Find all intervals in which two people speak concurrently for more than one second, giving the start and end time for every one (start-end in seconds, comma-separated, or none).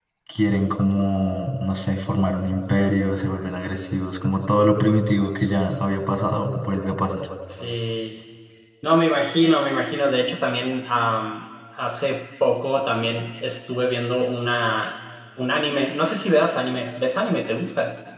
none